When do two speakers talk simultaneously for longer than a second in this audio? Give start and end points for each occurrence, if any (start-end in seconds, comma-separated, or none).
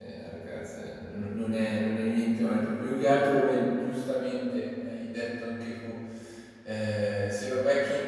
none